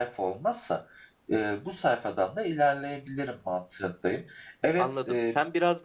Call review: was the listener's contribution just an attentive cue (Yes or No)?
No